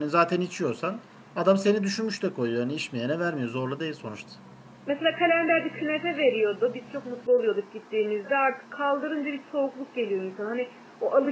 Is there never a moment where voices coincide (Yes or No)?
Yes